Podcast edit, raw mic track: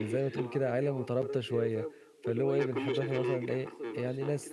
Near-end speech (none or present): present